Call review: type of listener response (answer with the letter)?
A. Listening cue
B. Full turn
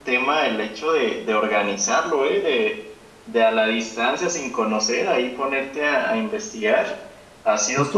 B